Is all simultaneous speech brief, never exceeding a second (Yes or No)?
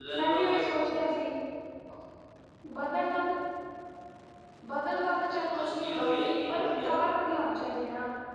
Yes